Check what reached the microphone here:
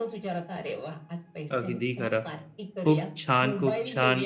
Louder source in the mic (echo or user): user